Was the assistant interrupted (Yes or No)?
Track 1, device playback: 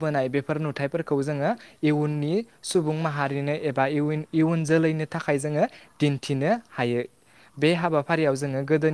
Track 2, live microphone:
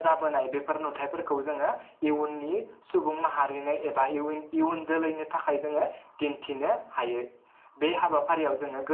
No